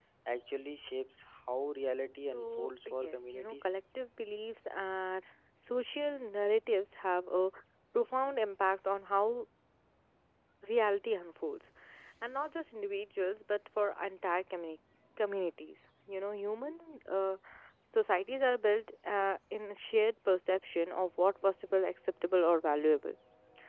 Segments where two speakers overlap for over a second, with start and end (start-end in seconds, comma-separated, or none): 2.3-3.7